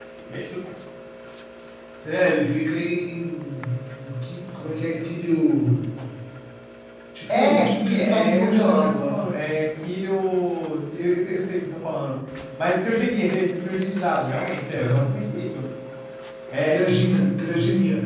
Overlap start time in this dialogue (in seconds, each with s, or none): 7.3 s